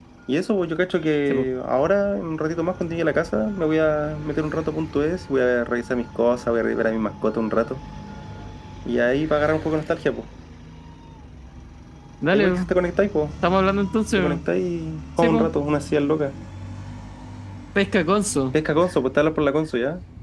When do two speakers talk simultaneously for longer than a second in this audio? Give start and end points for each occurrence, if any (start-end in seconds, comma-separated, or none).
none